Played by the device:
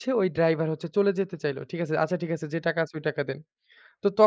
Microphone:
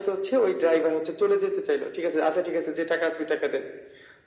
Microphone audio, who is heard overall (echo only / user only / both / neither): echo only